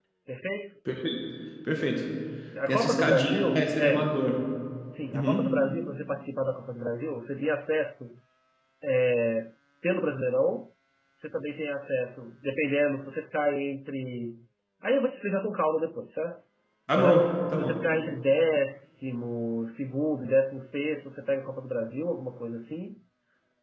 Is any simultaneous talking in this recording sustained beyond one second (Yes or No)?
Yes